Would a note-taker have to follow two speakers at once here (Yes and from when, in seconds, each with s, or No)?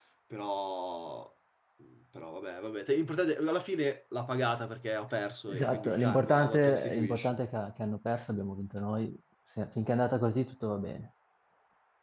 Yes, from 5.5 s